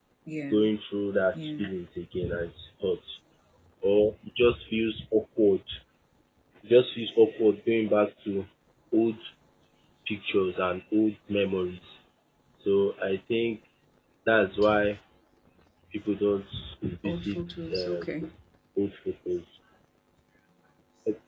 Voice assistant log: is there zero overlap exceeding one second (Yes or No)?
No